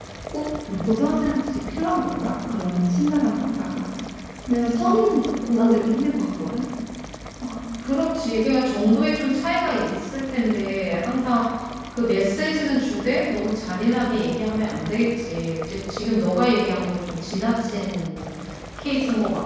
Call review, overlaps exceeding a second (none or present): none